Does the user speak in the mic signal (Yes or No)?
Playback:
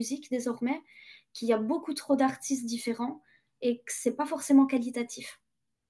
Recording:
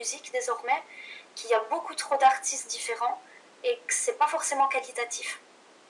No